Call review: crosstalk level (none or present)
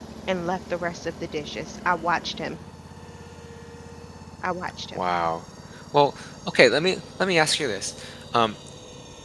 none